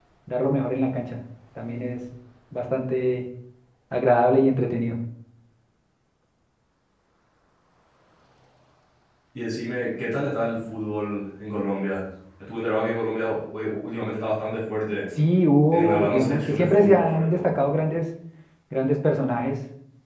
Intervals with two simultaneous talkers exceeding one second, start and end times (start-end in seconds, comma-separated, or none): 15.7-17.5